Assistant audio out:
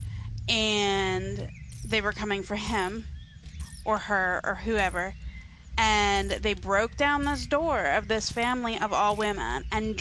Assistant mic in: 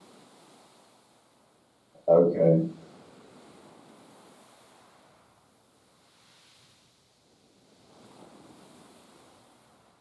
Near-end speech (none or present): present